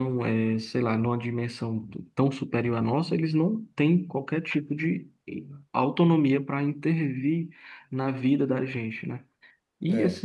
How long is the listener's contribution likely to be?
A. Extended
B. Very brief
B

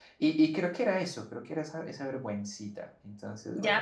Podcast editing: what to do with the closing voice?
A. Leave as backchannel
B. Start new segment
B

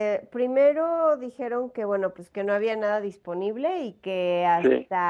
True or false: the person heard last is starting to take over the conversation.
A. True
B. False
B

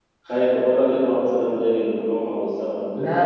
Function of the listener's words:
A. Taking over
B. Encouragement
A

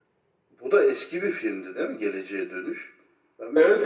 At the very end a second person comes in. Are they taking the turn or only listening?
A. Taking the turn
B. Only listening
A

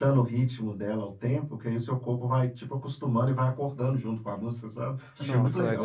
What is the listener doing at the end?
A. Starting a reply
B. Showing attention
A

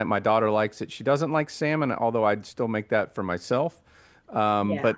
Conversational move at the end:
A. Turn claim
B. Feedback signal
B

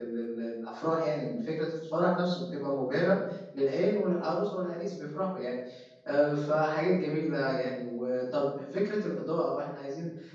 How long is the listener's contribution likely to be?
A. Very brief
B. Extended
A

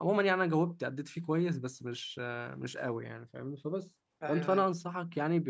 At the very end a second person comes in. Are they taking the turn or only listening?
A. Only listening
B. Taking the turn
A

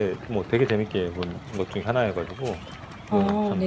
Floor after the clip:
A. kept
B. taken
B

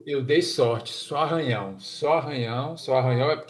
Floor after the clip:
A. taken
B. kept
B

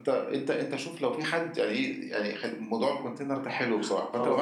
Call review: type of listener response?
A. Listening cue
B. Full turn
B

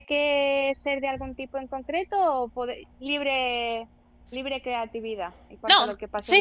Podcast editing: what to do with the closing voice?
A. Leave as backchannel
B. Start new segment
B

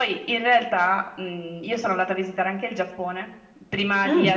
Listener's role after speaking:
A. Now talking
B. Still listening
B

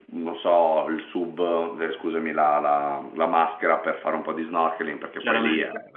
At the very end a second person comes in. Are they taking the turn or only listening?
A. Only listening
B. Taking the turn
A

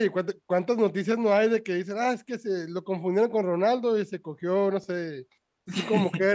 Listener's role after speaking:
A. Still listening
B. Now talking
A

